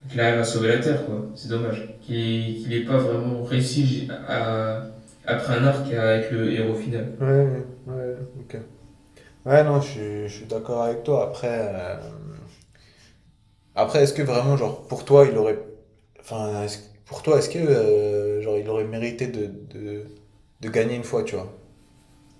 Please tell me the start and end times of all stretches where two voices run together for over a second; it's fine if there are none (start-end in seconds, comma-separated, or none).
none